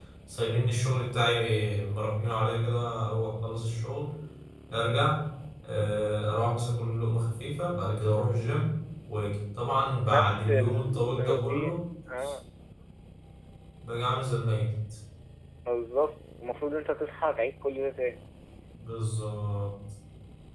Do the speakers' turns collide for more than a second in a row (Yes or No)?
Yes